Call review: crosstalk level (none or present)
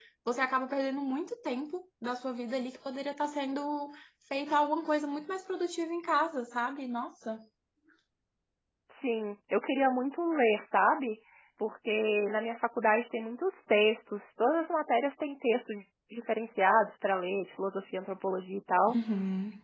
none